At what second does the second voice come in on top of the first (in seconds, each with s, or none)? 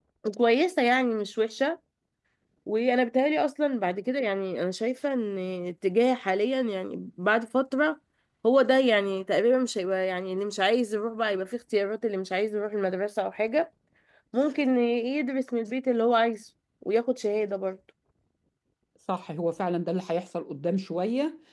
none